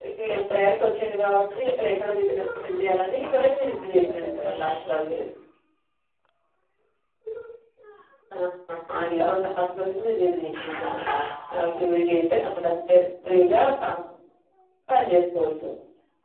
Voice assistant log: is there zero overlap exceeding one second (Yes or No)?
No